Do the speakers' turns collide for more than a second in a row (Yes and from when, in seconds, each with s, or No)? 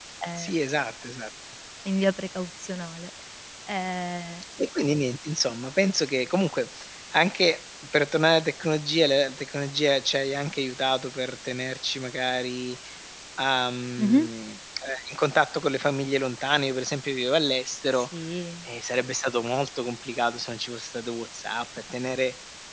No